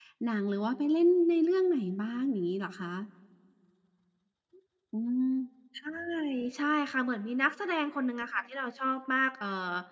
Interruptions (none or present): none